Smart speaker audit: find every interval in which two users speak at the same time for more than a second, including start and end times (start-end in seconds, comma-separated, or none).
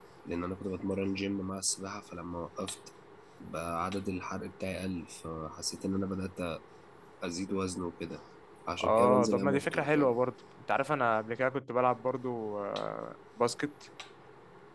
8.8-10.1